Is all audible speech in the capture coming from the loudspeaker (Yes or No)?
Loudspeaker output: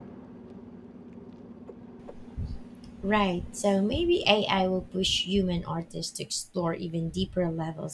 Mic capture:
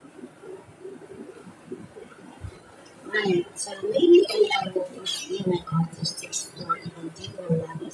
Yes